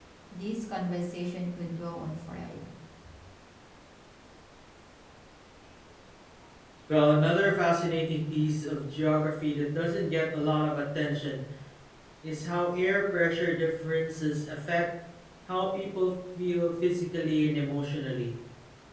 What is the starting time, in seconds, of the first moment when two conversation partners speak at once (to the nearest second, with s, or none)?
none